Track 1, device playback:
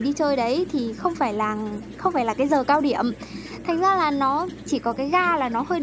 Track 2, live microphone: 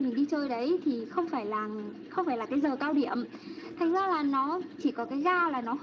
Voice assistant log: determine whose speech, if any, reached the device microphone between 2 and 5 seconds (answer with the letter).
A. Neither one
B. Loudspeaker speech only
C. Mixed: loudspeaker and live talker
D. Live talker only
B